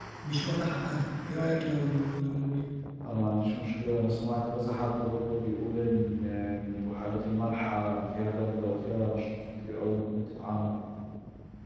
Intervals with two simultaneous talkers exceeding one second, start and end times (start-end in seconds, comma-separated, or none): none